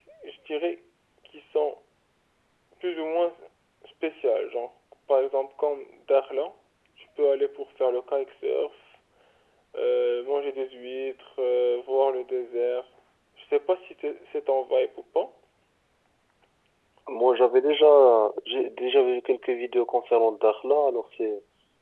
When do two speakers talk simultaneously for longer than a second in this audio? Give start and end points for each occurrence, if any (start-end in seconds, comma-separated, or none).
none